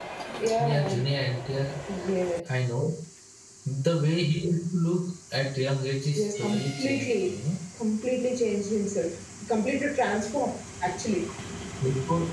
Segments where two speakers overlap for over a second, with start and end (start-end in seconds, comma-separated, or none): 6.2-7.4